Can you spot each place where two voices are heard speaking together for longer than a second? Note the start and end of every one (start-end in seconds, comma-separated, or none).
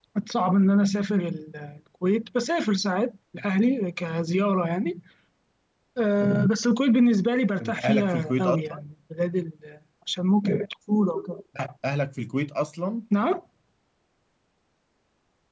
7.6-8.8